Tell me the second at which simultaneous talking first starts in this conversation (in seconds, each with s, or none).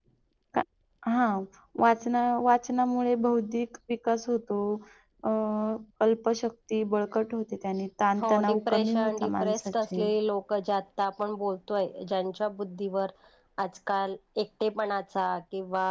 8.2 s